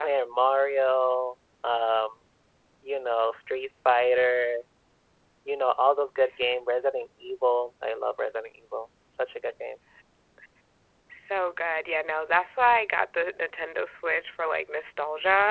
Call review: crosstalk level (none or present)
none